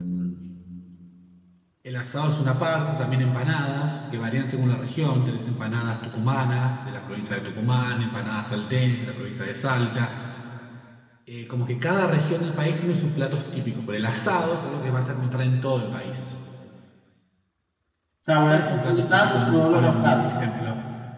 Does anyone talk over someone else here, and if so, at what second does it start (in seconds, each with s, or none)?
18.5 s